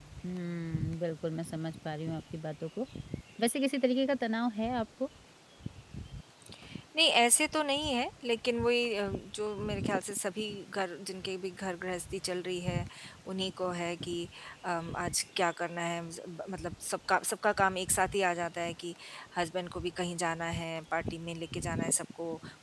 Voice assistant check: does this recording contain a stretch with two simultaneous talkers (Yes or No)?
No